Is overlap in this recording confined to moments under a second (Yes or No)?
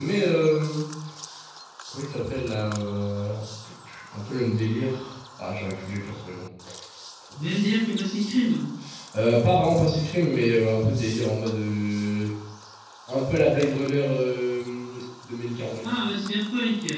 Yes